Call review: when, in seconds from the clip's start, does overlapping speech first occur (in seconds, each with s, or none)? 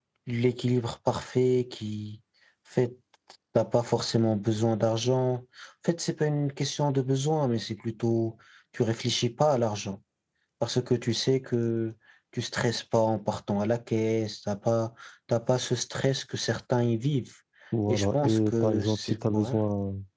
17.9 s